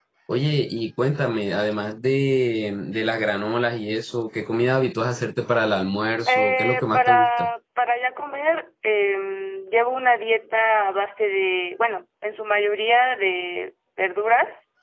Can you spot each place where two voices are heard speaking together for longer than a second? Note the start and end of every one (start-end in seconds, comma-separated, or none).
6.3-7.5